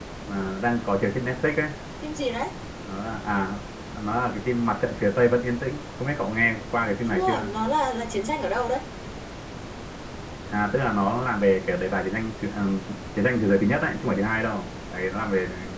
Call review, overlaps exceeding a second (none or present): none